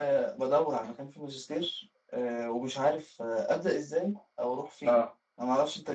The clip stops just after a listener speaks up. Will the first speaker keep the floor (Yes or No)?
Yes